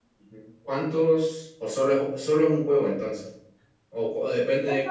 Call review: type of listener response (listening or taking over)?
taking over